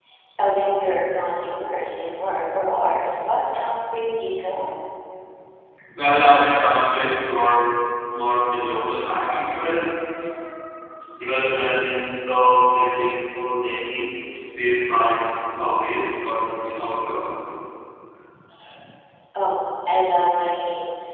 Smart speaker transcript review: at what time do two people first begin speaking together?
none

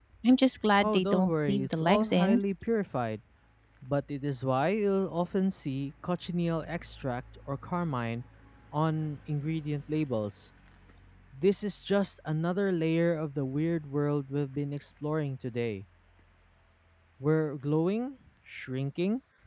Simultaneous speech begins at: 0.8 s

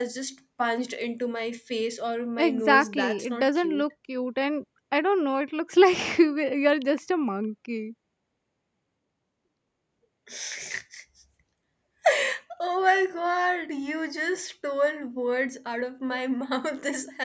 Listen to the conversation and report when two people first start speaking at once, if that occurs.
2.4 s

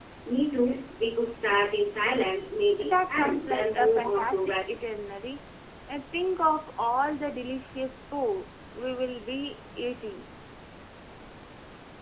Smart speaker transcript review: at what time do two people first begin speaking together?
2.8 s

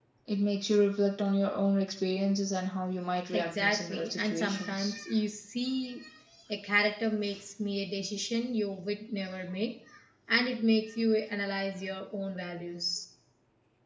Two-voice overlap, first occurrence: 3.3 s

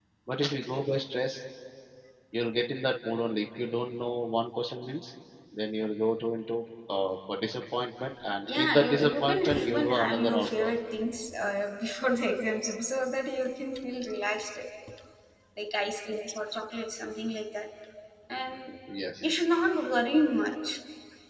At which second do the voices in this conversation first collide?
8.5 s

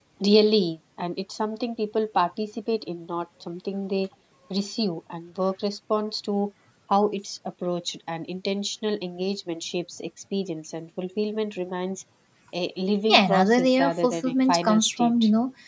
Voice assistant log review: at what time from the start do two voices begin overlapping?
13.1 s

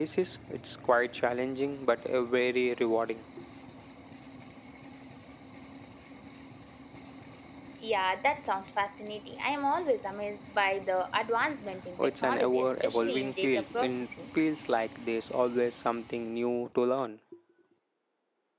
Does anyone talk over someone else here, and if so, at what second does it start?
12.0 s

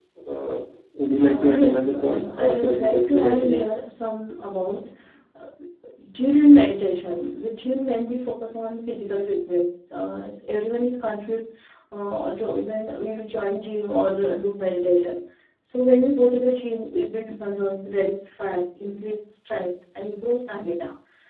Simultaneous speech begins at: 1.2 s

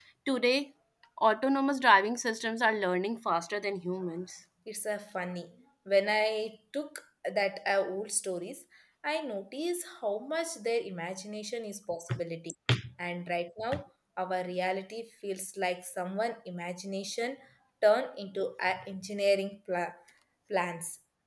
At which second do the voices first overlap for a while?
none

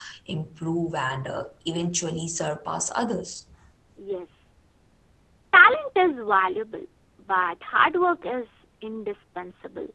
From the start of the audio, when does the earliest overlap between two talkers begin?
none

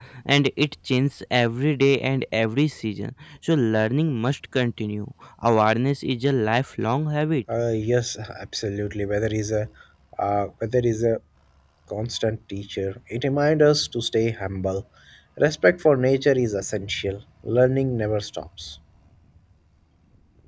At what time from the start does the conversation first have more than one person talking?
none

